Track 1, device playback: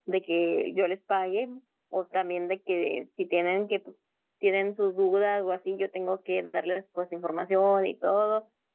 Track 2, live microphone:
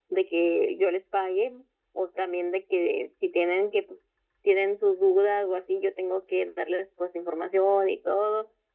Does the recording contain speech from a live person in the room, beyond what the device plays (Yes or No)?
No